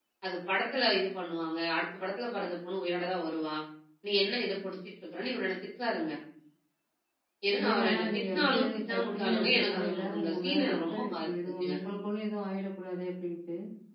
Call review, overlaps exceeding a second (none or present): present